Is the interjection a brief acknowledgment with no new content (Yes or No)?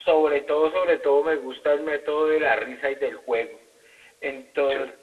Yes